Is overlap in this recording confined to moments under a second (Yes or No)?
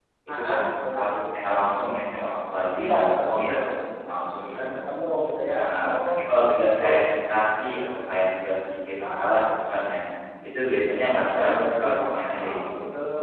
No